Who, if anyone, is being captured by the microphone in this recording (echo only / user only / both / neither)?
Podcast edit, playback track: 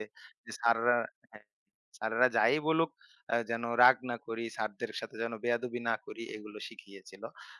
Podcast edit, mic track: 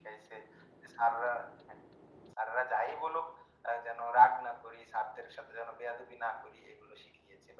echo only